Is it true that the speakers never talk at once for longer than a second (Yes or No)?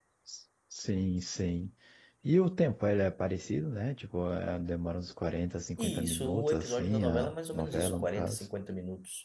No